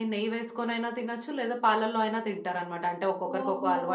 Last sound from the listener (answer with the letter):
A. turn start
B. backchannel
A